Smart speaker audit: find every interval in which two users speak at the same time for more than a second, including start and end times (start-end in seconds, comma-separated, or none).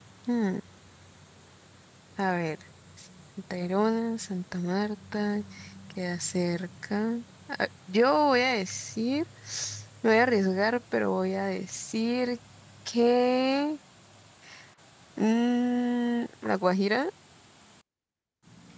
none